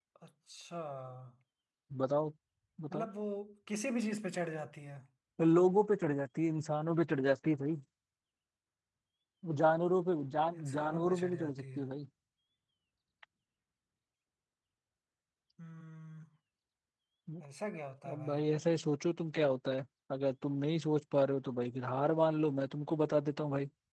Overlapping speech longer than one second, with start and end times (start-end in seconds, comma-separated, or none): 10.5-11.9